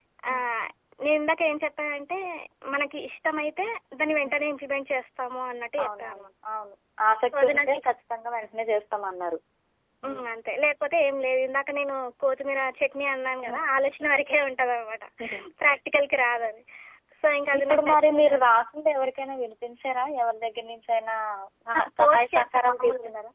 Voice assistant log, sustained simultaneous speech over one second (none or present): present